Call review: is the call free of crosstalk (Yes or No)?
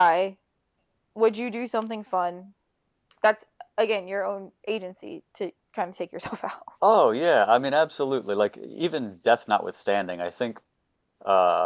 Yes